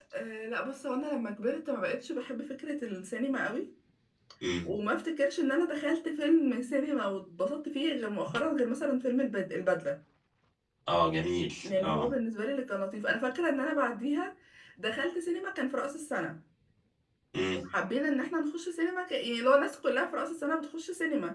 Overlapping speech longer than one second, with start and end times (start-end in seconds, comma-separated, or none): none